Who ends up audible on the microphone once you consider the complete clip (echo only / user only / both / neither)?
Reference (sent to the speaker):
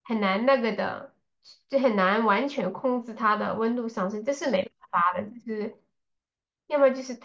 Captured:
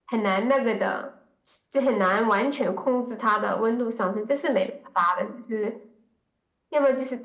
echo only